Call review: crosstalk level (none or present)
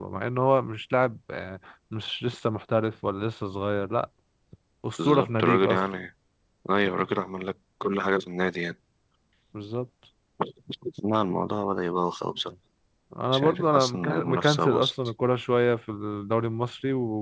present